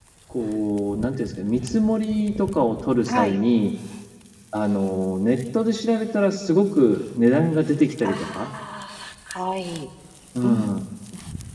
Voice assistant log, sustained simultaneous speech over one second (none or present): none